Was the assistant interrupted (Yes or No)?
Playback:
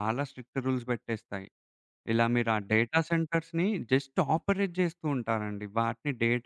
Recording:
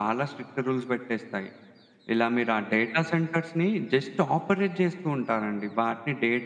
No